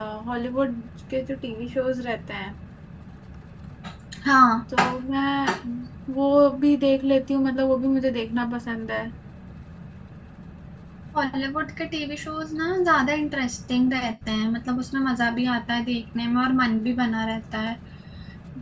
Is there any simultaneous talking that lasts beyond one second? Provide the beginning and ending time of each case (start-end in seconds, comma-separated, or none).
none